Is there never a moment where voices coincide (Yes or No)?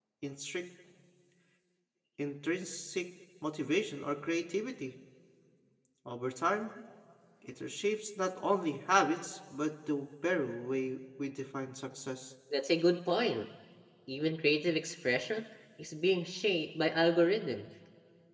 Yes